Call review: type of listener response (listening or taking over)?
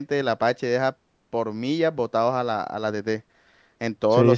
taking over